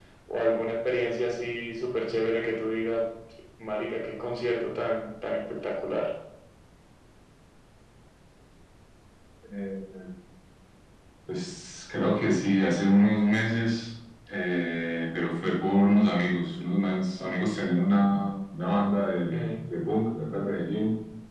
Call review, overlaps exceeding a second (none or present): none